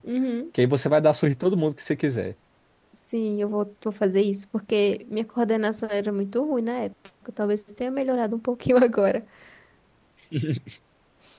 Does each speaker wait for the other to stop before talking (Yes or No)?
Yes